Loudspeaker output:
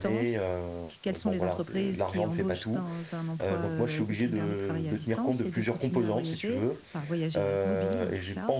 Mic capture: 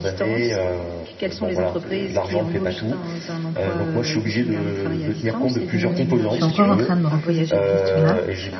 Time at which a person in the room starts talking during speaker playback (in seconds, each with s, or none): 5.7 s